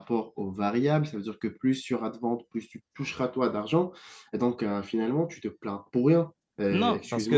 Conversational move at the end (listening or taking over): taking over